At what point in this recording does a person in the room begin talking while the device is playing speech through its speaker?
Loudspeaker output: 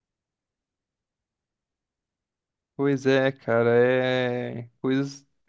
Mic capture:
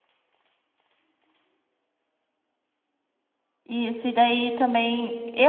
3.6 s

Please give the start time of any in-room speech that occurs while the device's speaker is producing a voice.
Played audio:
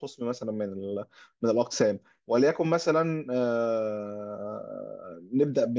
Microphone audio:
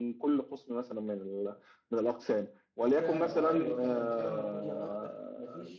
2.9 s

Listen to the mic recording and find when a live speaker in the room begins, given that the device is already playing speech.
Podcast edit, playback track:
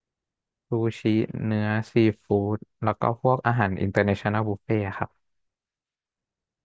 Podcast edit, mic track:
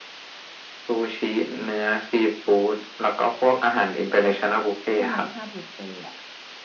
4.9 s

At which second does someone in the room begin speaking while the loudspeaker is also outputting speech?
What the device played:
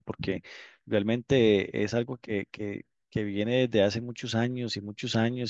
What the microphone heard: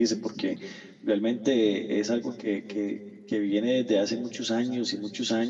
none

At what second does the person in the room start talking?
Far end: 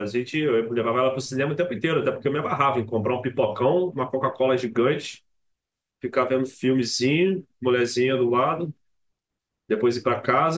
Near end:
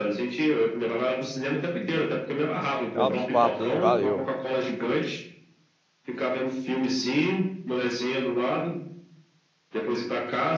2.9 s

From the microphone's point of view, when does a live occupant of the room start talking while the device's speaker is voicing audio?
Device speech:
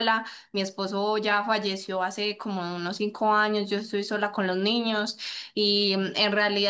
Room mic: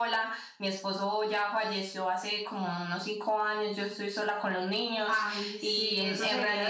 5.1 s

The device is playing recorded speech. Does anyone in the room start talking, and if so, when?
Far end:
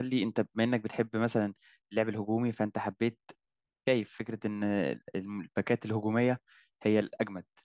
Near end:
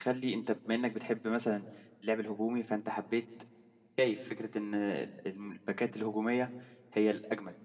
none

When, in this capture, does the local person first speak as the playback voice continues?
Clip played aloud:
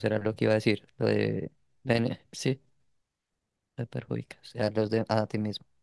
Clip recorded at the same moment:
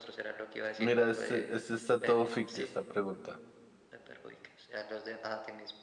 0.8 s

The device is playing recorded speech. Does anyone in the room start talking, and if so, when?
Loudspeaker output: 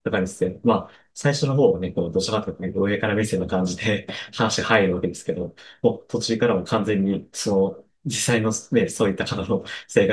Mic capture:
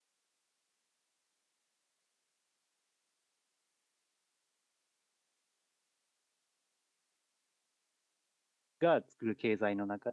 8.8 s

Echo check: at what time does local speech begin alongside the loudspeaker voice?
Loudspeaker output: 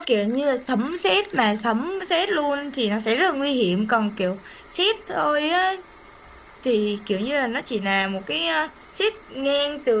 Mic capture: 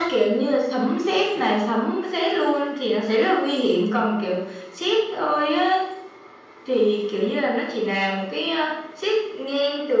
none

